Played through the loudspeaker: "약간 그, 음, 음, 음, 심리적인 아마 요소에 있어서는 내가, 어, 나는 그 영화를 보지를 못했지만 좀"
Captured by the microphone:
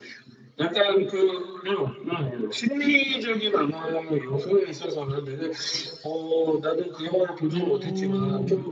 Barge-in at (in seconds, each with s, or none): 7.5 s